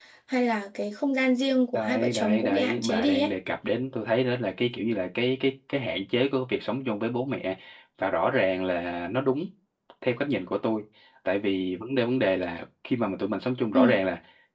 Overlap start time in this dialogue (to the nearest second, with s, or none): 2 s